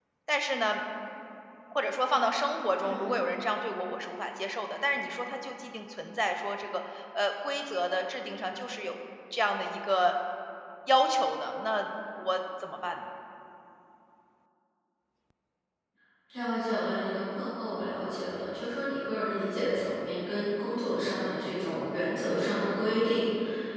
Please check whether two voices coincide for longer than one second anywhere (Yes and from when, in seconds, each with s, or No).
No